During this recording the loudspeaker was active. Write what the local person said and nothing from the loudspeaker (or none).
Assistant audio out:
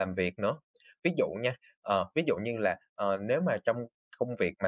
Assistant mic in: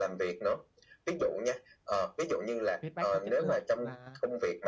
Feedback có chất lượng và